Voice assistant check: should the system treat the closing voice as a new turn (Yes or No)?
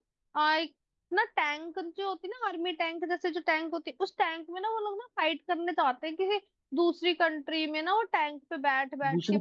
Yes